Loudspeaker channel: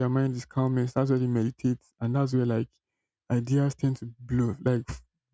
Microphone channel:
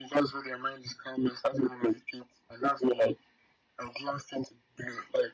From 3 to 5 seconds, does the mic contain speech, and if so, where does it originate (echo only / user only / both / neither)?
echo only